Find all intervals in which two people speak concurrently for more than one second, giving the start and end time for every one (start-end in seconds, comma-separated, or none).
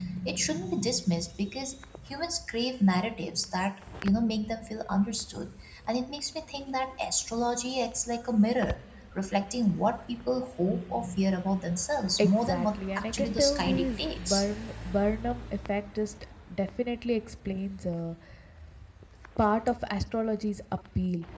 12.2-14.4